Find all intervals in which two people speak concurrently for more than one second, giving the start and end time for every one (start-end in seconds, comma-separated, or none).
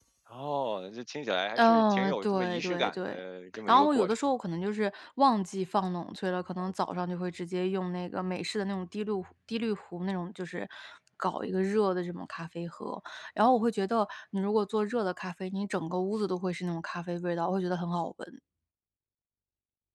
1.6-3.2